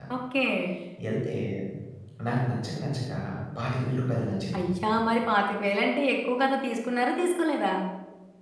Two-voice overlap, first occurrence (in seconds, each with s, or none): none